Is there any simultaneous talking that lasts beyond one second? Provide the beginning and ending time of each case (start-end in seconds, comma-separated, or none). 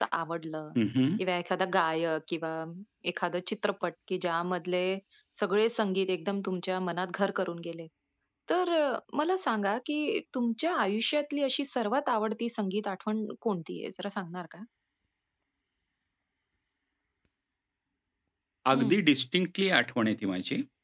none